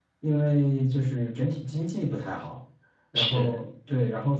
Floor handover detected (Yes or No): No